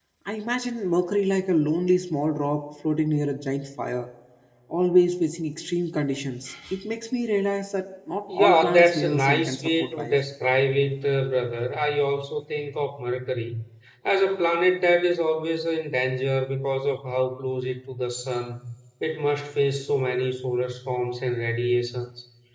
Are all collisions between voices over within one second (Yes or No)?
No